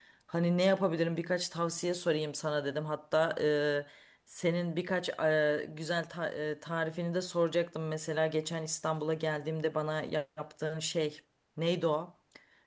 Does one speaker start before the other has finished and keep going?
No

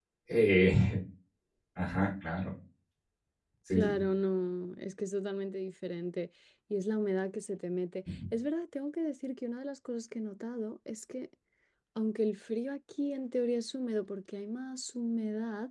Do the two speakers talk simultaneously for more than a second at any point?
No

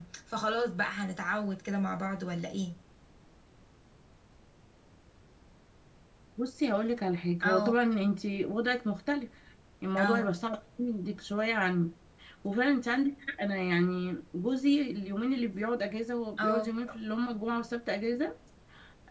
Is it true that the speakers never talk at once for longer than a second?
Yes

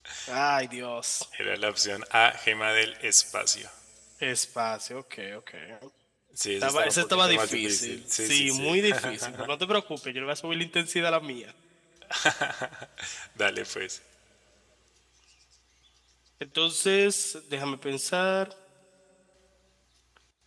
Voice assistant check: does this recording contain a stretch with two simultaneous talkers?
Yes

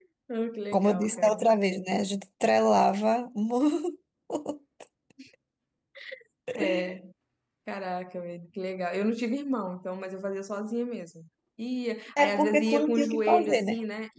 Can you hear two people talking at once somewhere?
Yes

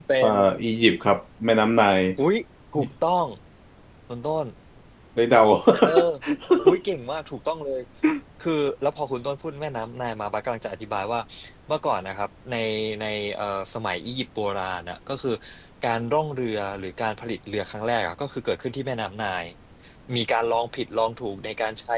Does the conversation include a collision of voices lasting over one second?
No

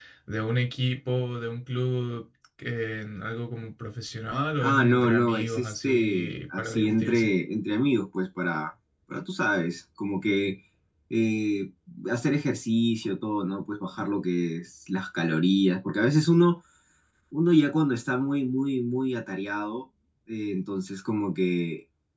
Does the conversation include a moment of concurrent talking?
Yes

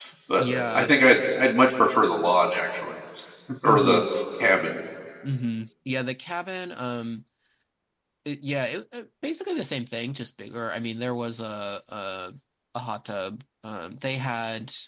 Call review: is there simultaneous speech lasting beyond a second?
No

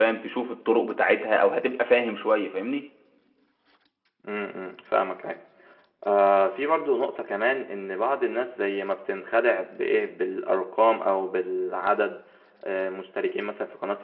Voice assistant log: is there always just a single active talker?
Yes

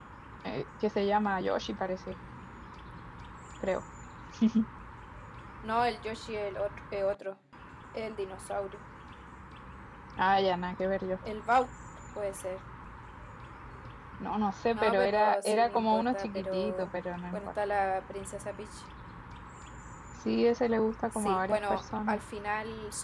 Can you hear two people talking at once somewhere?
Yes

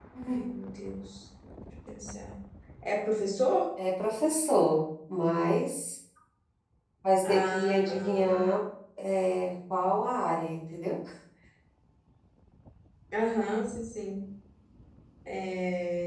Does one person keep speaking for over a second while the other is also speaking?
Yes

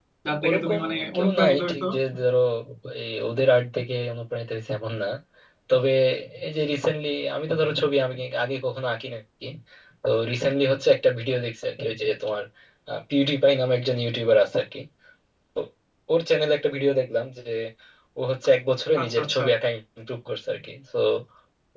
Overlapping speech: Yes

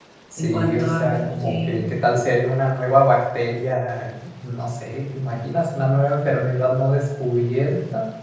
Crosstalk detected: Yes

